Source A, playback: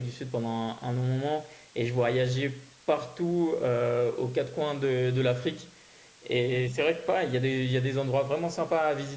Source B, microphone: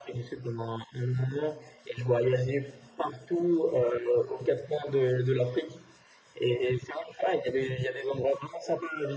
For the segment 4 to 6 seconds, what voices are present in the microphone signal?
echo only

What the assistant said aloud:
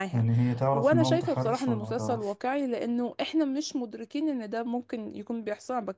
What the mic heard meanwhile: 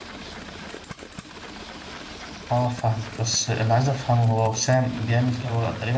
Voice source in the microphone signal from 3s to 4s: user only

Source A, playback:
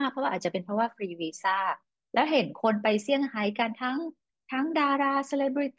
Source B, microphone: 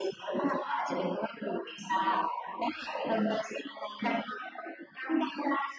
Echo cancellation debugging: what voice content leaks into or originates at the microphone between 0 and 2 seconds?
echo only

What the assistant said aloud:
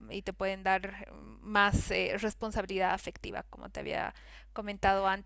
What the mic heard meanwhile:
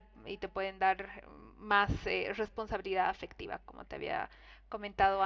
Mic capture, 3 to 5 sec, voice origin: echo only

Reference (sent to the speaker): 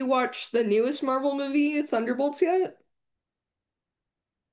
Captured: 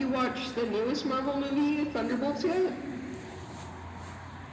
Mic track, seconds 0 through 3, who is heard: echo only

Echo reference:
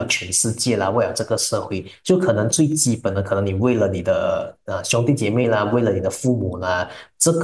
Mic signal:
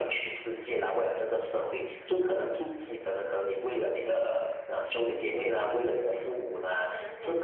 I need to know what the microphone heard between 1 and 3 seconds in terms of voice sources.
echo only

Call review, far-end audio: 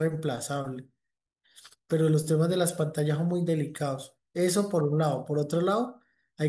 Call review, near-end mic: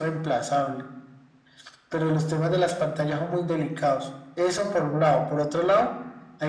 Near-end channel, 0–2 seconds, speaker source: echo only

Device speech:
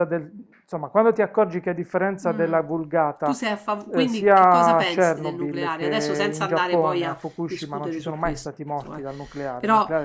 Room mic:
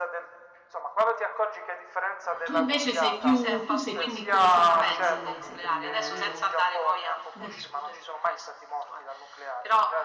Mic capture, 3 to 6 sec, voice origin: both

